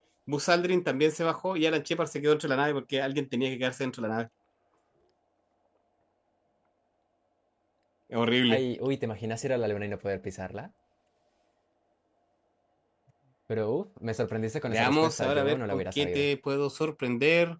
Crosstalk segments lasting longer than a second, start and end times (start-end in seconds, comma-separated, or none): 14.7-16.3